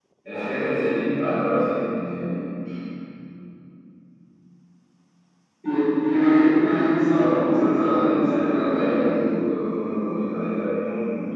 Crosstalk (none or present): present